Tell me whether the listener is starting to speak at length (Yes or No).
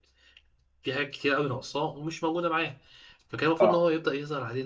No